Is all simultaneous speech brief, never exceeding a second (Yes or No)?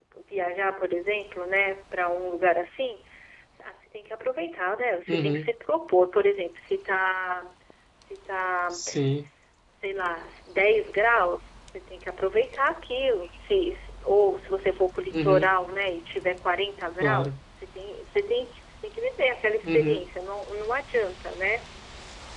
Yes